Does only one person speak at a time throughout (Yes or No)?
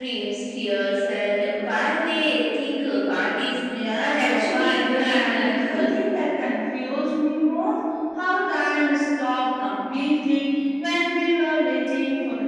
No